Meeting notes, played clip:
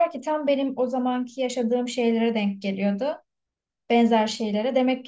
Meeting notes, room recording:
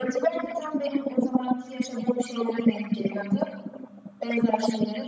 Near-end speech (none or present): none